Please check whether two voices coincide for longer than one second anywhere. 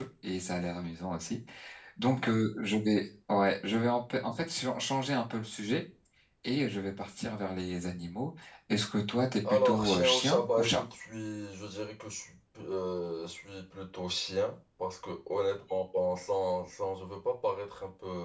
Yes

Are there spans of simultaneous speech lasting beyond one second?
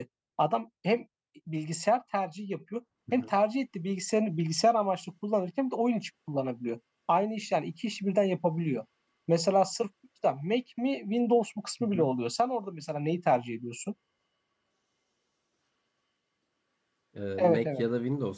No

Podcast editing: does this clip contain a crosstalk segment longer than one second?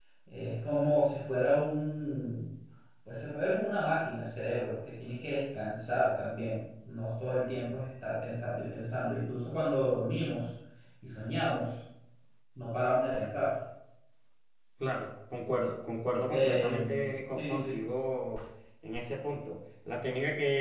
Yes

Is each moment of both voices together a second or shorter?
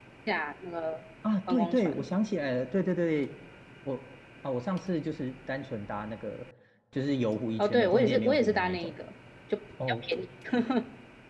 No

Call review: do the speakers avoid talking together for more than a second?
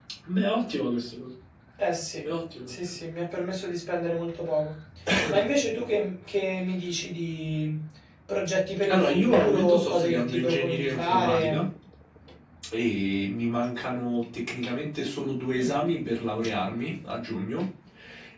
No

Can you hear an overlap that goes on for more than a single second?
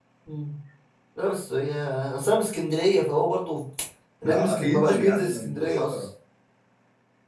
Yes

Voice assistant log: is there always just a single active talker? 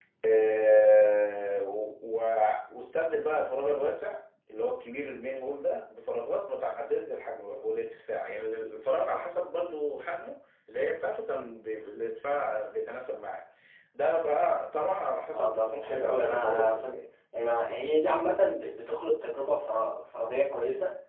No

